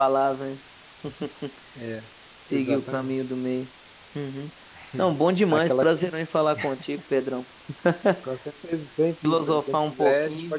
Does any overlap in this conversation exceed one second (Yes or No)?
Yes